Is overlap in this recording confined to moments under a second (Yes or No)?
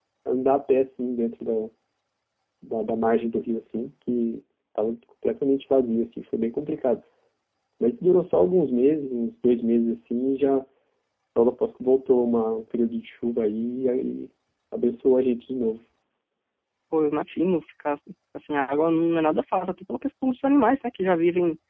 Yes